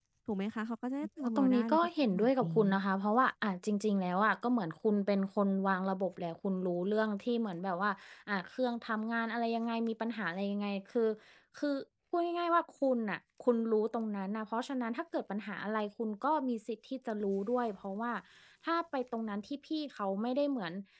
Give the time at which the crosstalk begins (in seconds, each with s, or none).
1.2 s